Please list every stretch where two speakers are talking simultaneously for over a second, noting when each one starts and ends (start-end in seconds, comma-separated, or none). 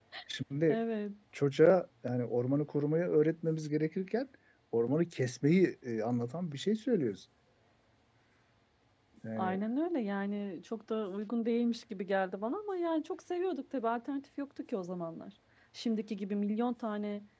none